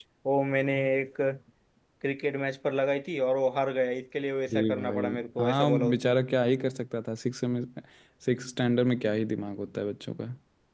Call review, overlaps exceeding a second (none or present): present